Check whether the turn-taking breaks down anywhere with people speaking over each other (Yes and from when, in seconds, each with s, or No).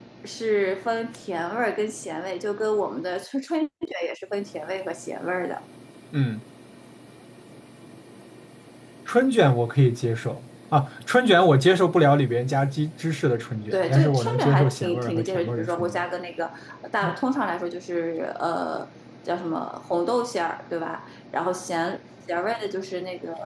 Yes, from 13.7 s